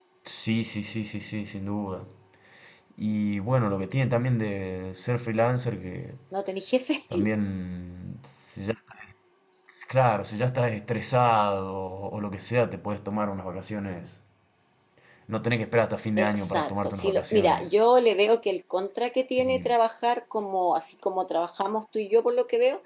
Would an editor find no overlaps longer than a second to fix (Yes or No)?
No